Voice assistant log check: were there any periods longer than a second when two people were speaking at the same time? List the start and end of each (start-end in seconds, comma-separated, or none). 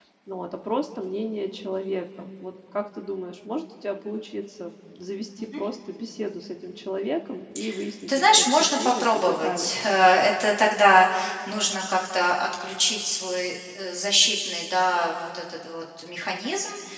8.1-9.7